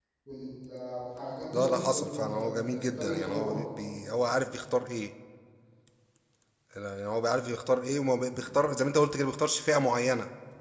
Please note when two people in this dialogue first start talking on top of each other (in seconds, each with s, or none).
1.5 s